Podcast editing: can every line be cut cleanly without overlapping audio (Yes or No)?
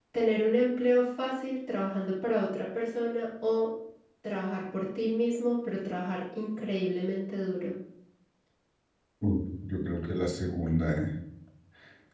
Yes